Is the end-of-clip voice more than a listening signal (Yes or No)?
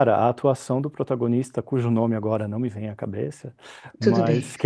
No